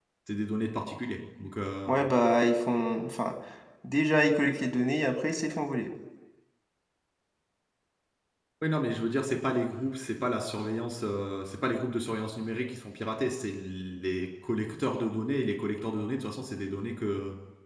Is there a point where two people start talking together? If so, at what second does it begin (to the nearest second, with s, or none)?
none